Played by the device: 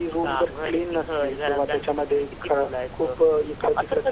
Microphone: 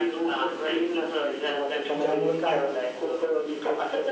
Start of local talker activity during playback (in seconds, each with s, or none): 1.9 s